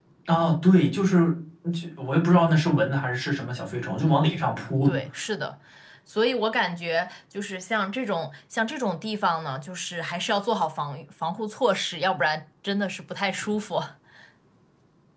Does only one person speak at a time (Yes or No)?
Yes